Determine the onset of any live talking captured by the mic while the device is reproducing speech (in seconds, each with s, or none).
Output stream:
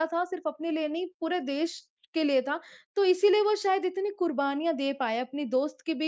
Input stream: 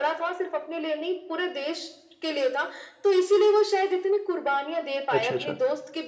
5.1 s